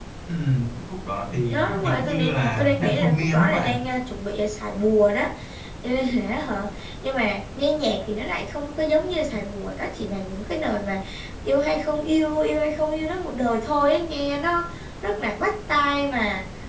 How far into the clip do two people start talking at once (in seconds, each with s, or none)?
1.5 s